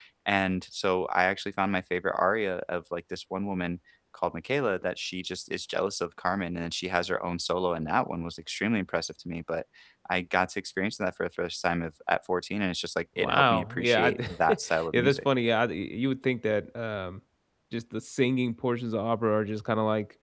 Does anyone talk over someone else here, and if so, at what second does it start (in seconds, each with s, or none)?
13.2 s